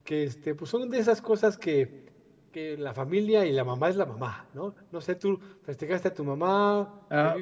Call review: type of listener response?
taking over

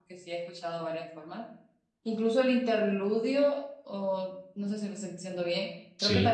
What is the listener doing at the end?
listening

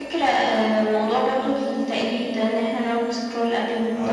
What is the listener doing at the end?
taking over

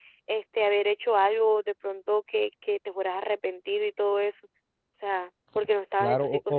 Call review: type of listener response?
taking over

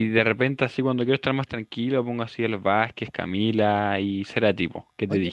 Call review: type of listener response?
taking over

